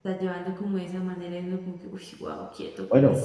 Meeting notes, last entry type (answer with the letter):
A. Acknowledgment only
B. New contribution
B